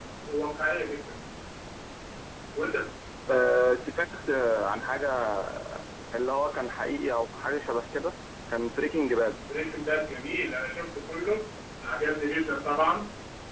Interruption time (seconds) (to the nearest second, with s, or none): none